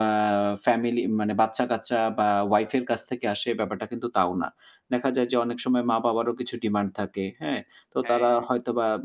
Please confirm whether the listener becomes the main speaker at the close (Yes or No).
No